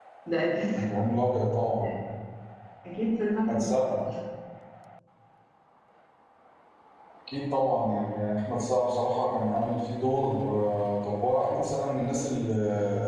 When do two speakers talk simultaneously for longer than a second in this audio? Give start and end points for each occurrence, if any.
none

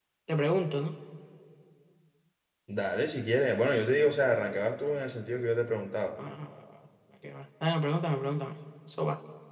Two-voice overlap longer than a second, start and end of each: none

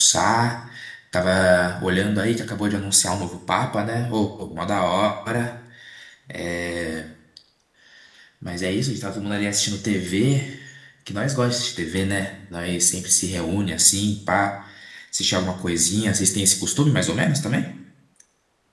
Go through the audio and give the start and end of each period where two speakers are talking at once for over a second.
none

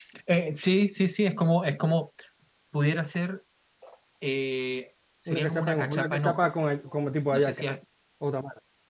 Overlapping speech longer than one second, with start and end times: 5.3-6.5

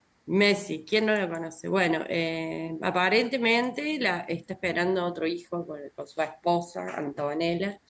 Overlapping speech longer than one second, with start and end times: none

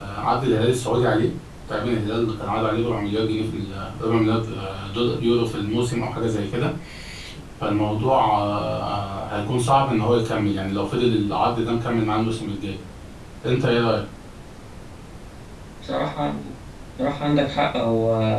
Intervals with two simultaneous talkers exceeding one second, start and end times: none

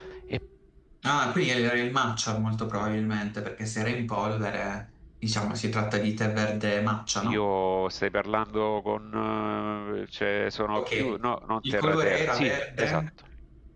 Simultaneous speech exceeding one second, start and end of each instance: 11.7-13.0

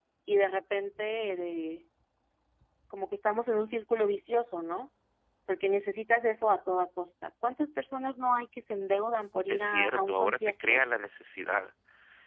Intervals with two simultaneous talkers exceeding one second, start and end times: 9.5-10.8

